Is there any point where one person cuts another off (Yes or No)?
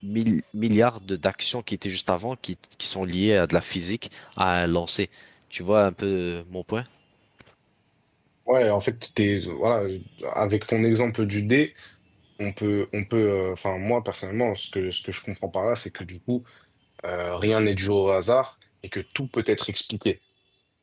No